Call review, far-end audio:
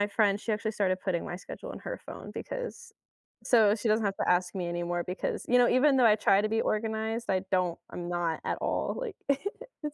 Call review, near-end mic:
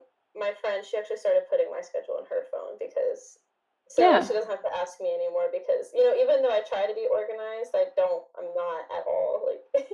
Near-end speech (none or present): present